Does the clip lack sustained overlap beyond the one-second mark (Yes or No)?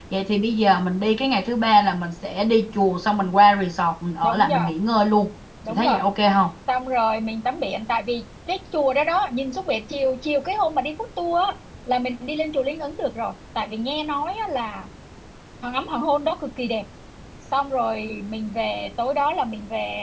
Yes